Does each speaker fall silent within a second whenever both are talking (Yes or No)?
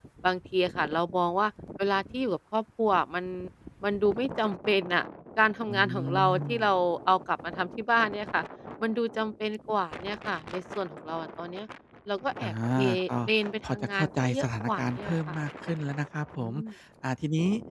No